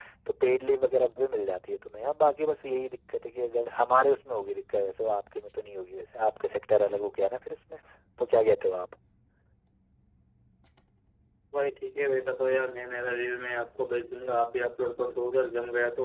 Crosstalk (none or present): none